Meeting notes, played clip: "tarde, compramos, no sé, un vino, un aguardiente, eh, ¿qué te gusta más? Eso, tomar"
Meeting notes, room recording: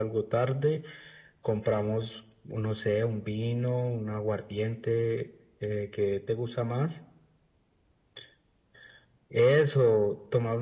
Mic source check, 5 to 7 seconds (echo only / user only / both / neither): echo only